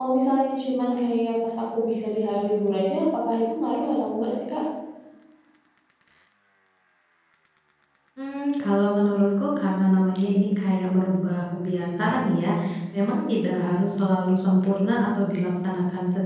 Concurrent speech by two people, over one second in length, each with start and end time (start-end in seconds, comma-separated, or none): none